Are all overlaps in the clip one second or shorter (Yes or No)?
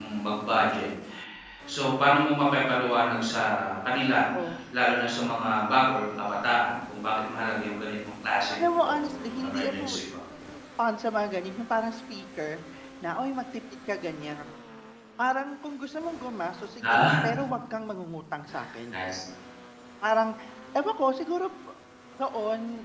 No